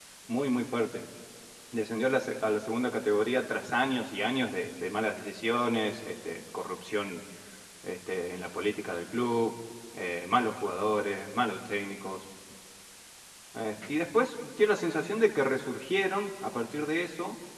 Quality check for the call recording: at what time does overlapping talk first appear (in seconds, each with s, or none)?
none